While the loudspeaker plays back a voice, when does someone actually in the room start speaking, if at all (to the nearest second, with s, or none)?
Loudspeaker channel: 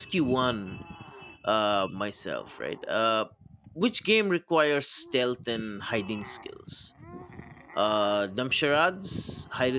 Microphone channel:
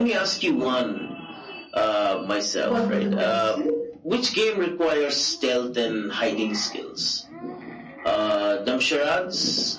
3 s